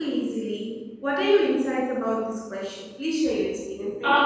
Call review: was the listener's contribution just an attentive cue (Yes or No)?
No